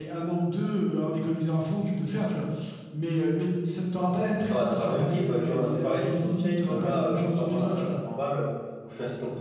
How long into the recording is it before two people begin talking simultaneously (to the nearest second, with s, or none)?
4 s